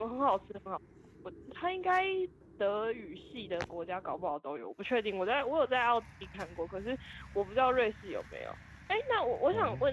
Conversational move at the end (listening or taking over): listening